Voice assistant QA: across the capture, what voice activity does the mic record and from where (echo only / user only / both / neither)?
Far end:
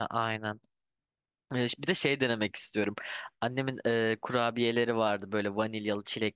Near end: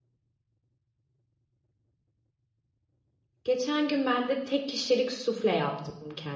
user only